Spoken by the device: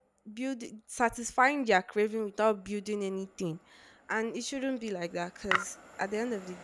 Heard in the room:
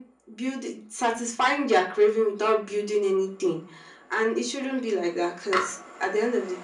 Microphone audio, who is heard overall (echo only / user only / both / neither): echo only